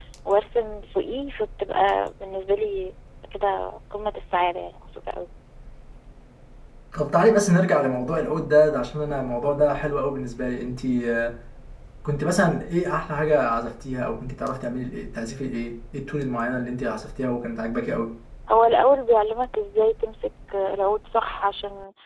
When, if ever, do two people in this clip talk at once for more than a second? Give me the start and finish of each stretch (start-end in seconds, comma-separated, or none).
none